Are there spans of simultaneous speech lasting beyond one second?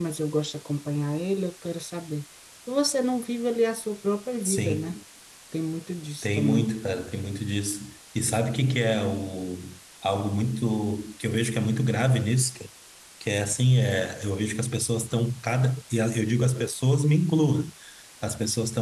No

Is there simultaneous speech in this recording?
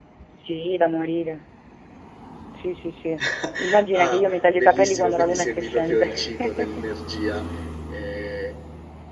Yes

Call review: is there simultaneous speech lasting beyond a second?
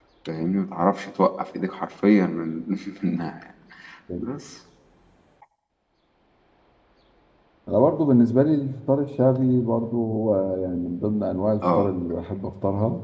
No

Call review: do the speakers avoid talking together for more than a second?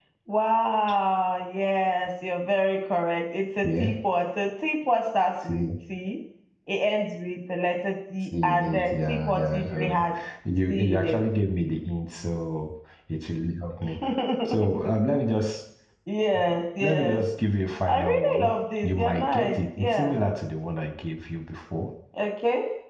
No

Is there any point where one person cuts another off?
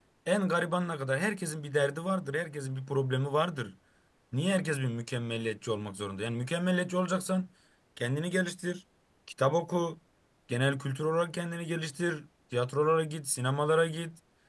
No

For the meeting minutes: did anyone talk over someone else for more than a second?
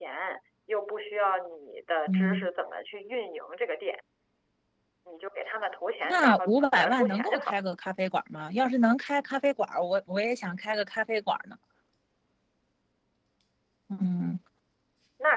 Yes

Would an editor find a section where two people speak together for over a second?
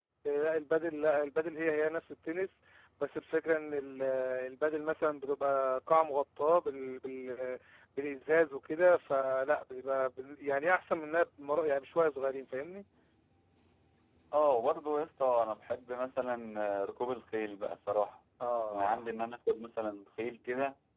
No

